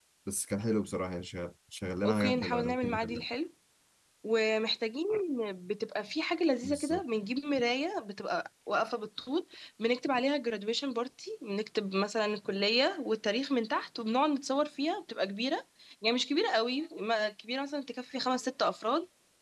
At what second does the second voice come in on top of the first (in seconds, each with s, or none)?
2.0 s